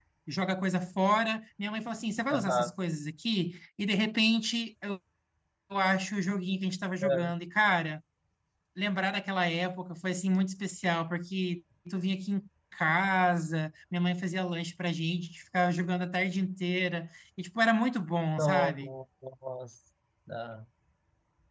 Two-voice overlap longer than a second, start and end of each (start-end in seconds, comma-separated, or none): none